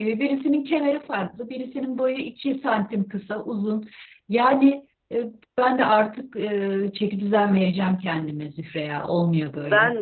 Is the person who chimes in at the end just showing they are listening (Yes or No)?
No